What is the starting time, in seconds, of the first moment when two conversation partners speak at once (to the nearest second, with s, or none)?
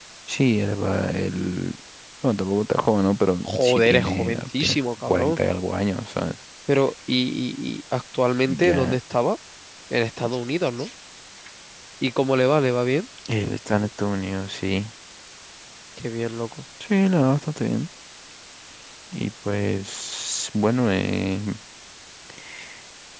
3 s